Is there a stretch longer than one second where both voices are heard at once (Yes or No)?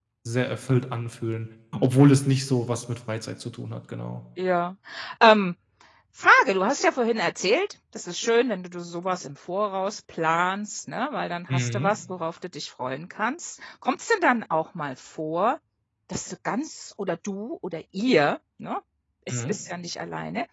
No